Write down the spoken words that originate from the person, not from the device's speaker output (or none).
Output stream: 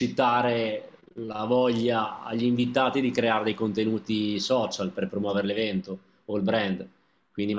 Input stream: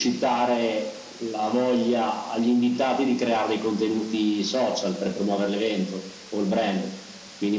none